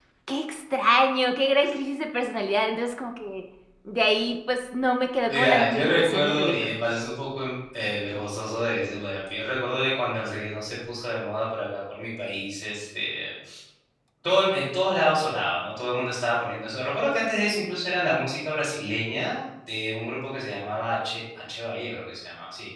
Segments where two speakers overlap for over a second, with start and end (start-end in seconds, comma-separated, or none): 5.3-6.8